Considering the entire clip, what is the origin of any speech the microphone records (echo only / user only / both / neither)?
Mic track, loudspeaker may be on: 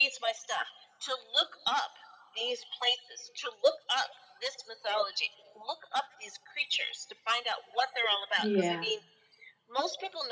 both